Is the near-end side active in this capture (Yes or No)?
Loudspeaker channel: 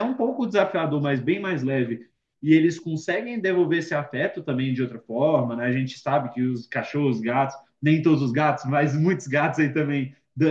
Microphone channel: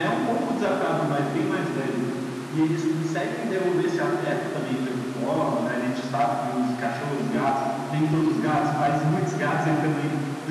No